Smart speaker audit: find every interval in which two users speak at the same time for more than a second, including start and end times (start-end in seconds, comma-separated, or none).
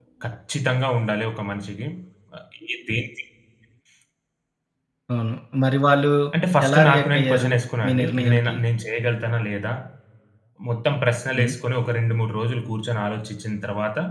6.7-8.6